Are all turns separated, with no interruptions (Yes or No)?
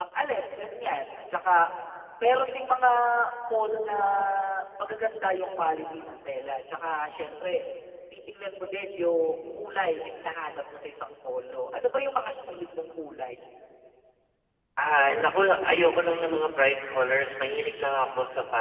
Yes